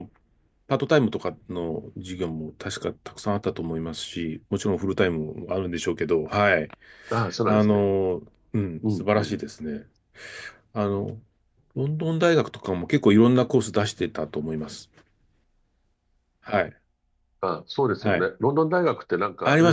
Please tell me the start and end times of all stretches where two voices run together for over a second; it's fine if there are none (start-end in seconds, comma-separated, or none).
none